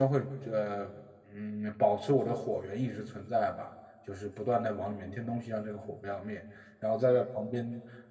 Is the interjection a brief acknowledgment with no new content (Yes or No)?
Yes